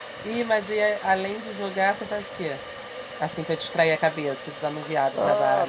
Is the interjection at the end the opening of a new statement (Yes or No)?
Yes